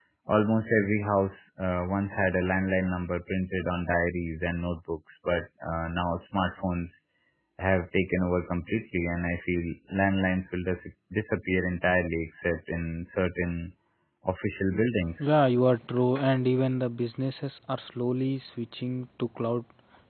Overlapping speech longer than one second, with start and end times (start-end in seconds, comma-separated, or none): none